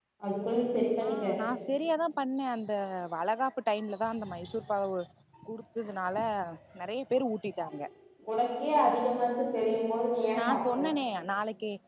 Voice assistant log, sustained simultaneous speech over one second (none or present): none